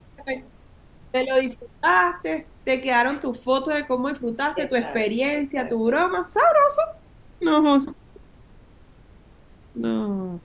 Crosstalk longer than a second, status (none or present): present